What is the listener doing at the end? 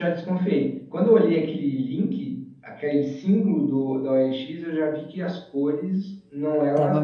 listening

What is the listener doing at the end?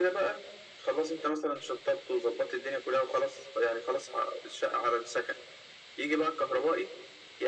listening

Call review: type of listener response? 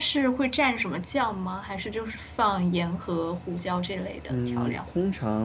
taking over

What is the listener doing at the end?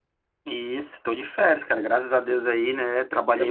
listening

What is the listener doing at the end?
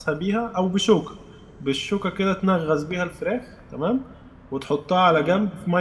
listening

